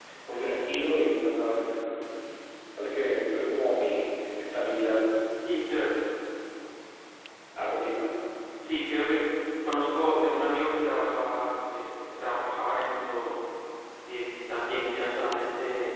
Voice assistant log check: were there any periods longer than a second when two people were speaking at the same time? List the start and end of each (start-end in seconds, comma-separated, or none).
none